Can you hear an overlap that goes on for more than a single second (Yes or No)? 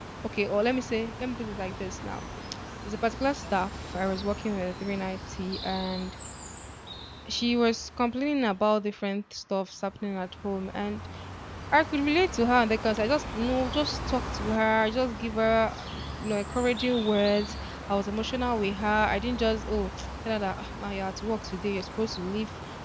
No